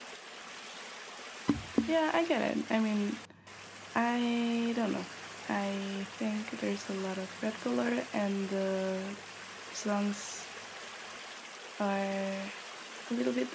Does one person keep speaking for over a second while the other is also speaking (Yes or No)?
No